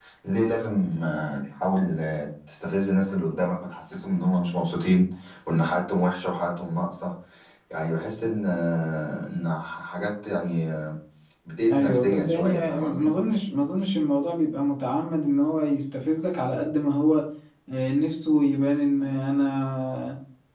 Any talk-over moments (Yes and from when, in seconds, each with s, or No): Yes, from 11.7 s